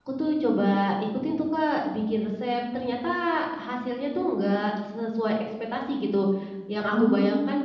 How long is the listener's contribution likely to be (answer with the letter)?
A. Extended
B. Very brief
B